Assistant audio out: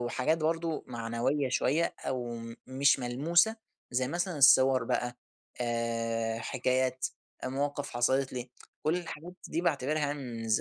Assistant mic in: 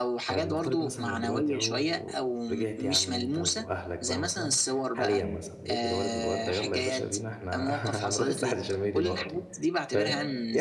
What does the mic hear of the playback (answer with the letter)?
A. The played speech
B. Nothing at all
A